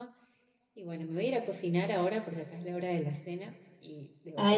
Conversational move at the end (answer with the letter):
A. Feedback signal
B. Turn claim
B